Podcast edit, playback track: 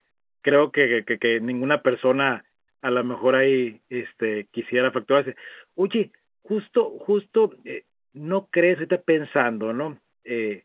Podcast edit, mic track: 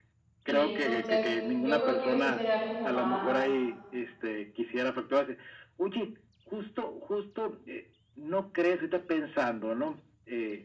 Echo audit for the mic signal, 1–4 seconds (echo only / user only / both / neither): both